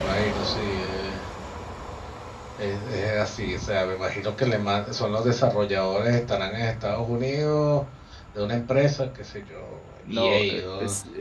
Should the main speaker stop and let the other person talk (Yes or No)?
Yes